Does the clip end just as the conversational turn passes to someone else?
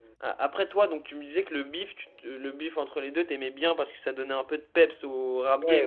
Yes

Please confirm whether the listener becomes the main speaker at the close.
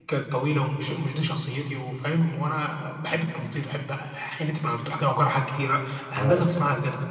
No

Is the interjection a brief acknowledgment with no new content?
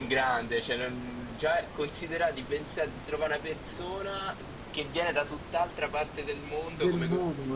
No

